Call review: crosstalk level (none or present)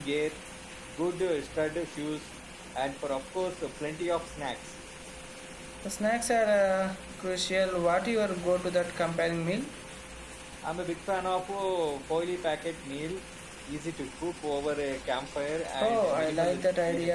present